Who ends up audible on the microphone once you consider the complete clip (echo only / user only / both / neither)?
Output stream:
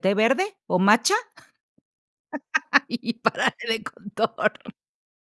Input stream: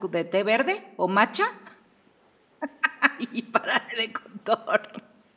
echo only